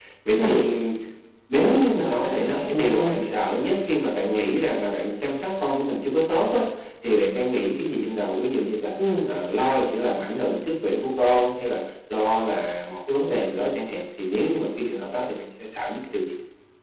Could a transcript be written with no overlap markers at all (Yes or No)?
No